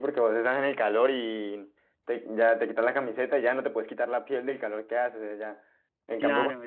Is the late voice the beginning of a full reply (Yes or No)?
No